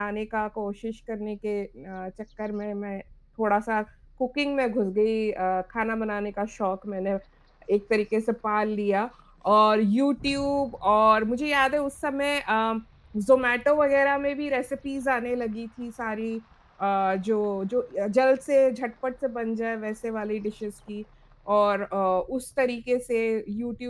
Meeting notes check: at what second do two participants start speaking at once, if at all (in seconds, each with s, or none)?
none